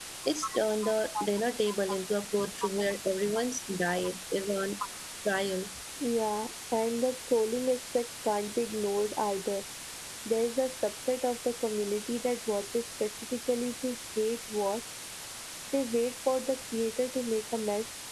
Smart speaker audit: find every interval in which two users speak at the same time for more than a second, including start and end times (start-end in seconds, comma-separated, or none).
none